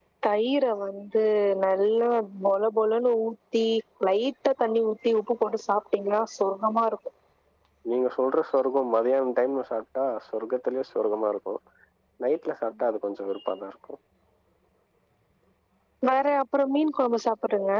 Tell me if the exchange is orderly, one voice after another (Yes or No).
Yes